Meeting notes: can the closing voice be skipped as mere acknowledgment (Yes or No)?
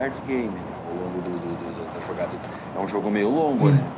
Yes